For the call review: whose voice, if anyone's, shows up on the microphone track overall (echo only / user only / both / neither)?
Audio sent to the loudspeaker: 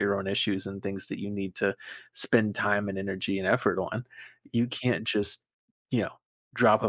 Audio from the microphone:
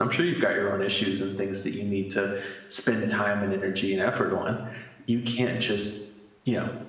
echo only